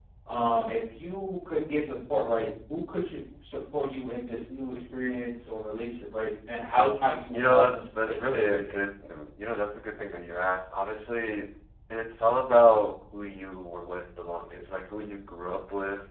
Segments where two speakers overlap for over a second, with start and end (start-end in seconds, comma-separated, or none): 7.3-8.7